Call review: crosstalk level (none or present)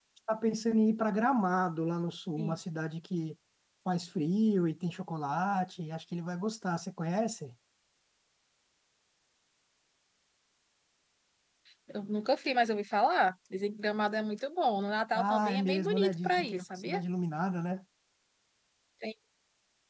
present